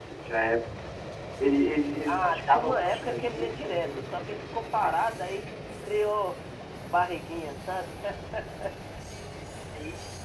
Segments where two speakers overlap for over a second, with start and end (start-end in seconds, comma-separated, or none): 2.1-4.2